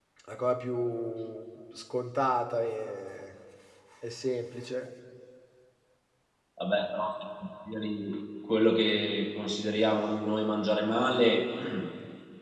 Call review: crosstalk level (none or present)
none